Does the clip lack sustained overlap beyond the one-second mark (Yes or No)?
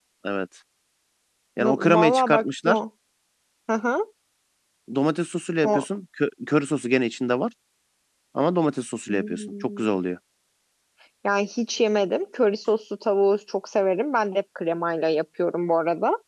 No